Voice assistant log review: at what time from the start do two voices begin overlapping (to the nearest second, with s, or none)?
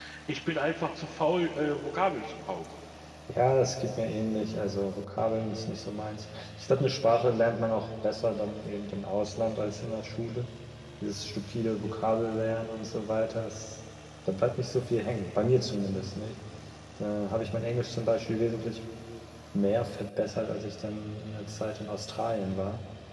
none